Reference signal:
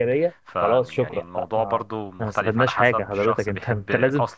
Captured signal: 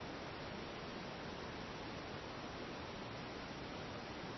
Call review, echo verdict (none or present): none